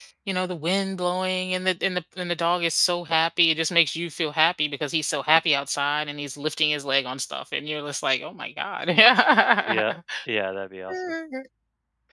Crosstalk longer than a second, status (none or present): none